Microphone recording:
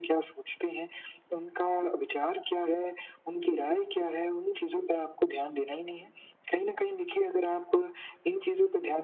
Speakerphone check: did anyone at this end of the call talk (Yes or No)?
No